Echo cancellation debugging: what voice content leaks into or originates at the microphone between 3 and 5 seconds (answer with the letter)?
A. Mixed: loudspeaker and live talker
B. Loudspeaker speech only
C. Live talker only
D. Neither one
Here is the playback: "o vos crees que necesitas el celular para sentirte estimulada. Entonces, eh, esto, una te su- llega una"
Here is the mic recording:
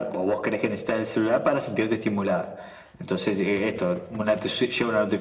B